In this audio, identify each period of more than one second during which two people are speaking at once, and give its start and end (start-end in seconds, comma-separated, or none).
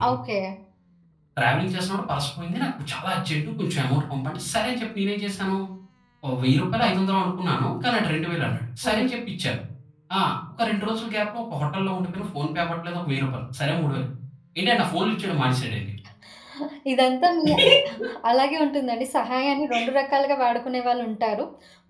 none